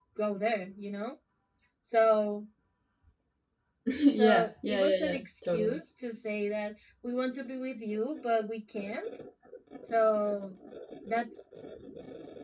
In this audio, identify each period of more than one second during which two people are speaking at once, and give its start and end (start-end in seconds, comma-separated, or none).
4.1-5.8